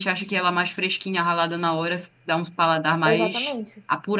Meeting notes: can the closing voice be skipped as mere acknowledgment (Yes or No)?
No